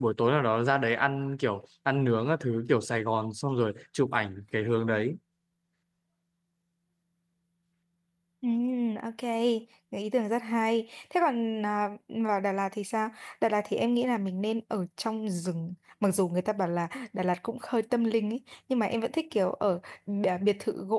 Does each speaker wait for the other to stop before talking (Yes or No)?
Yes